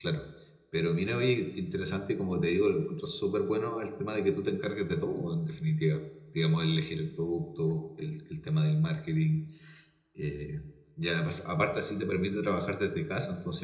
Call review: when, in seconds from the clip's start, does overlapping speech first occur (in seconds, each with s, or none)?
none